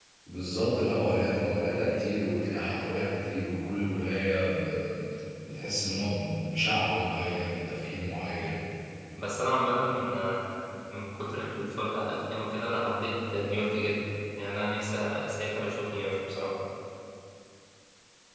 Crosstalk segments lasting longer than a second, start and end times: none

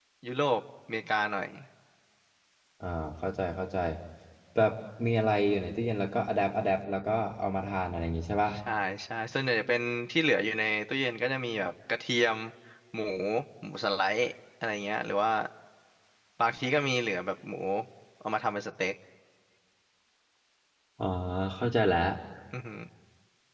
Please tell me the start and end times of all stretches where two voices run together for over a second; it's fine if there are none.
none

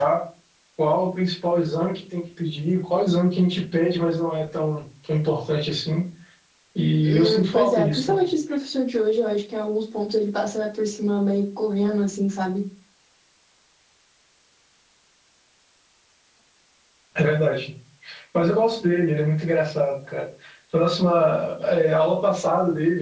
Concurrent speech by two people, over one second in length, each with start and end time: 7.0-8.3

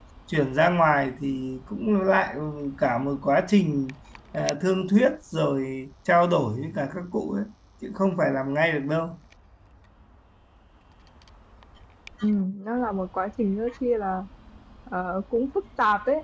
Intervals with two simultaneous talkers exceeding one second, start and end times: none

